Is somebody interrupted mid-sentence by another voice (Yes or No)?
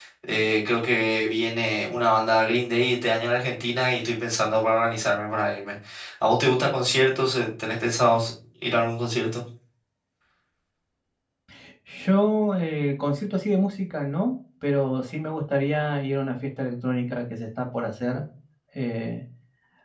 No